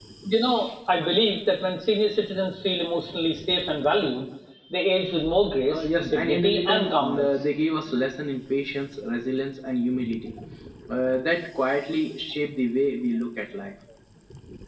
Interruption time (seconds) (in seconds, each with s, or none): 5.7 s